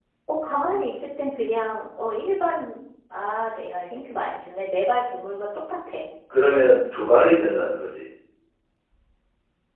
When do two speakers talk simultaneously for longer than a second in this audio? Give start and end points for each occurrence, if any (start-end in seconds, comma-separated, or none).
none